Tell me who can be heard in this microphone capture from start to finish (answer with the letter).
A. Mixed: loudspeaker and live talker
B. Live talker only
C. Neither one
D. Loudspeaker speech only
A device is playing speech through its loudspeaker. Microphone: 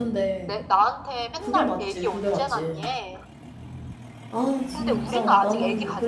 A